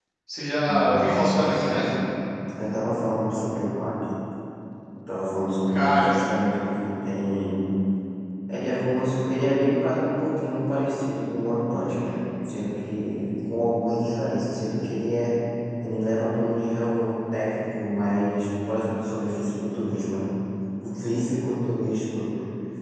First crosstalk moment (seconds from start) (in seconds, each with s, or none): 0.7 s